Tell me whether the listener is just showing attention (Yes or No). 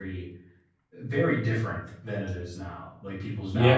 No